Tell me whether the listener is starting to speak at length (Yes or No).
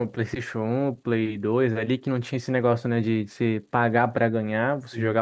No